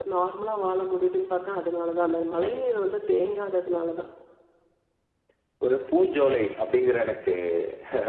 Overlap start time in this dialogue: none

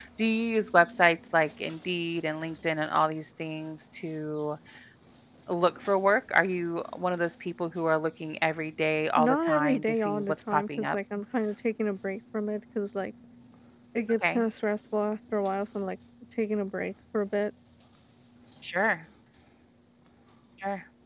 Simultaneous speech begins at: 9.2 s

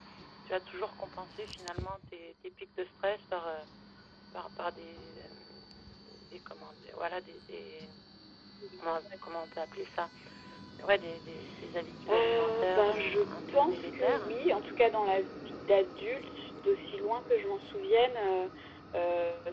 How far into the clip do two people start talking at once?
12.1 s

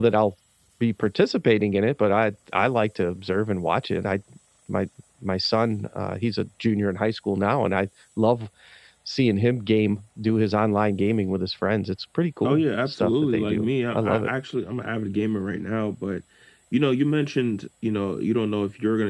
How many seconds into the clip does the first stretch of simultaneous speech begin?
12.4 s

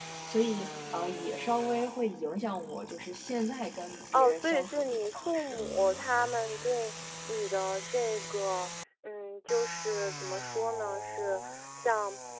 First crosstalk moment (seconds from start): 4.1 s

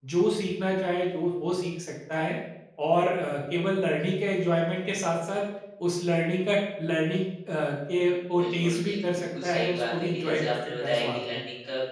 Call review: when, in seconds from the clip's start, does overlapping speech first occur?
8.3 s

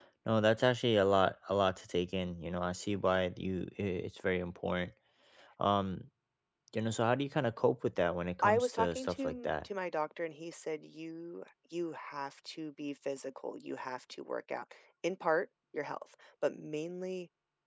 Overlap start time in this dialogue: 8.4 s

